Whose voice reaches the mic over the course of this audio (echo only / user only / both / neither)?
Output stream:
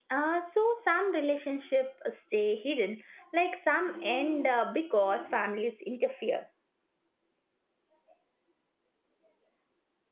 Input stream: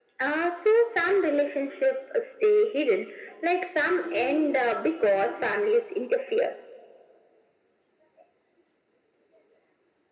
echo only